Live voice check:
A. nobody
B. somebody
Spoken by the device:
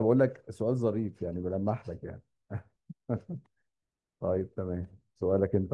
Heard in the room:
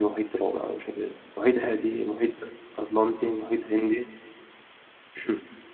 B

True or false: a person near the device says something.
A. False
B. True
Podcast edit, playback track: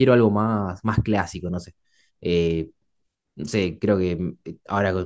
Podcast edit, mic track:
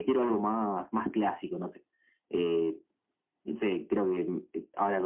A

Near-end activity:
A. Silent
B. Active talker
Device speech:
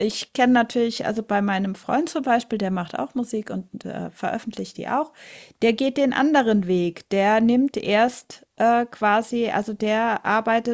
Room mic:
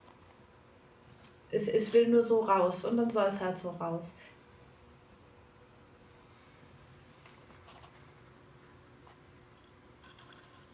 B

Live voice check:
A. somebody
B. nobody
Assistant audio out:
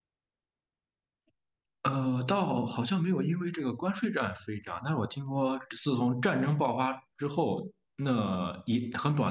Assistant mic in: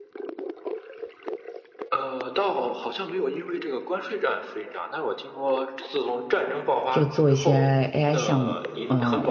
A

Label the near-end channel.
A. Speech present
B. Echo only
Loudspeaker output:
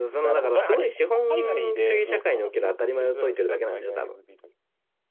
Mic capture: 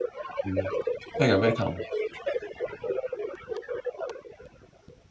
A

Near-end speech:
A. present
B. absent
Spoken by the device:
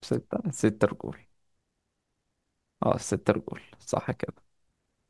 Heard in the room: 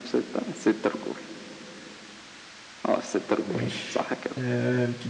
A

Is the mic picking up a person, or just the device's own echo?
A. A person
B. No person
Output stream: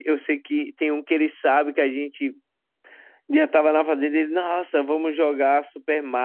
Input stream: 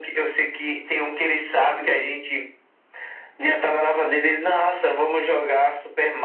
B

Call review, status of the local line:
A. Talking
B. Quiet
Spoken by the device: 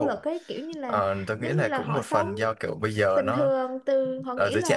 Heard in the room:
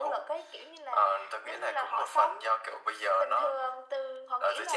B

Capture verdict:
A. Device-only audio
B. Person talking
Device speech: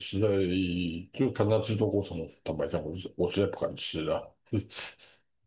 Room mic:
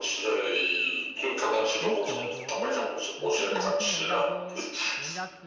B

